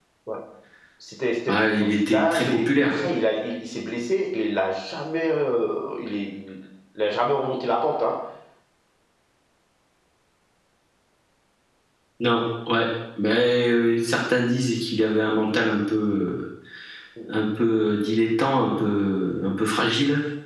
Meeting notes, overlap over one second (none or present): present